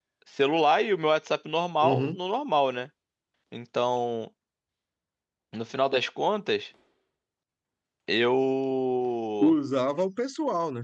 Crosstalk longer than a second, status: none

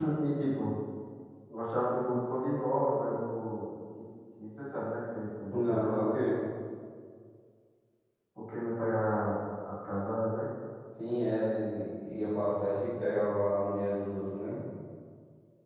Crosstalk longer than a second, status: none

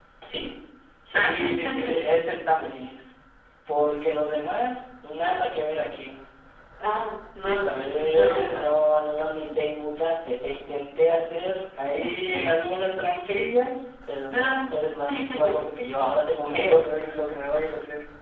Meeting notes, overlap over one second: present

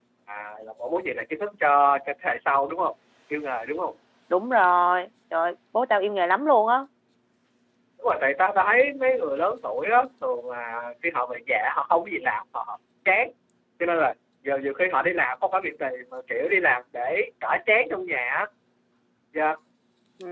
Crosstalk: none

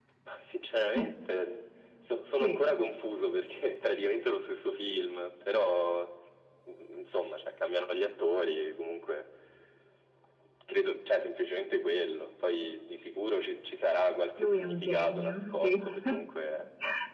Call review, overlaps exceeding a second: present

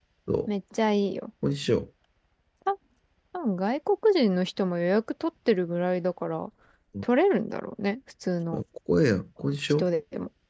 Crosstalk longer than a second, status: none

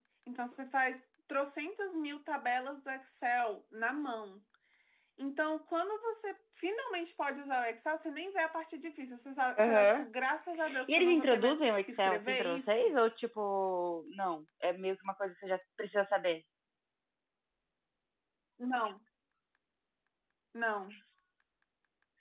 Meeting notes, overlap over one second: present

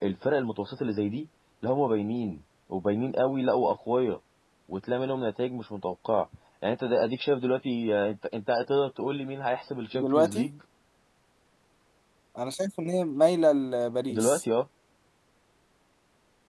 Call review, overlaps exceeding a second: none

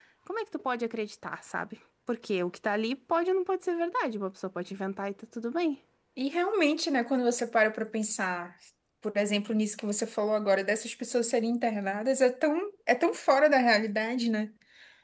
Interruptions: none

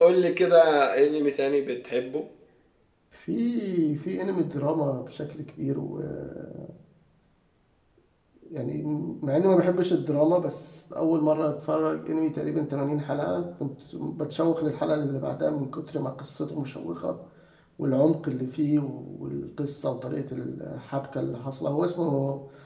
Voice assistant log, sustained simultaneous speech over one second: none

